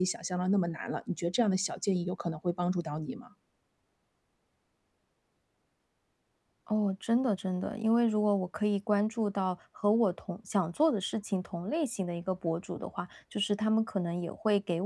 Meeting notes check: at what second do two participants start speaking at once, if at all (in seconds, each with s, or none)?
none